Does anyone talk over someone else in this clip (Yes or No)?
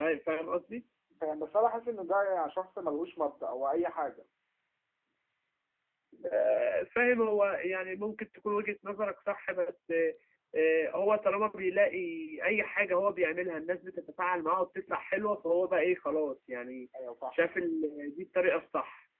No